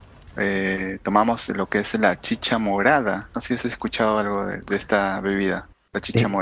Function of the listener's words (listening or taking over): taking over